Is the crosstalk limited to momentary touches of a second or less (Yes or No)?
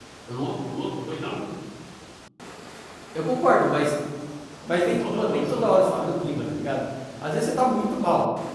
No